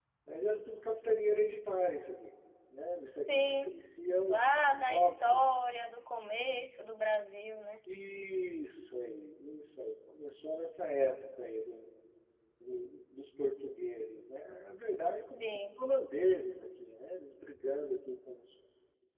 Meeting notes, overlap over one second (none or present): present